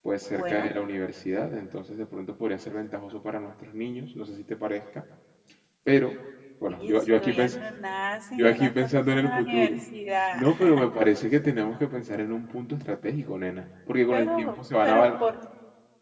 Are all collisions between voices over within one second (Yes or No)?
No